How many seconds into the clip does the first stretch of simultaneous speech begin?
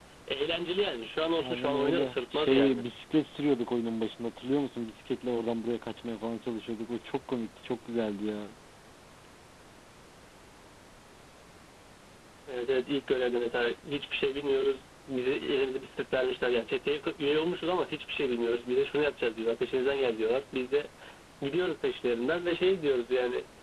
1.4 s

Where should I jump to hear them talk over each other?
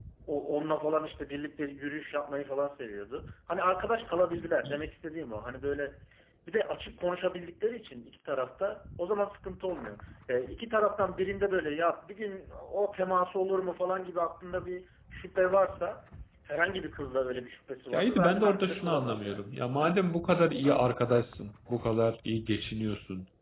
17.9 s

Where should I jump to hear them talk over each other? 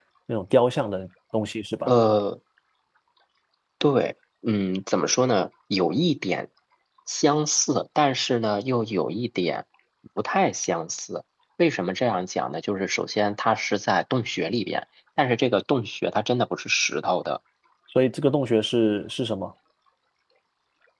none

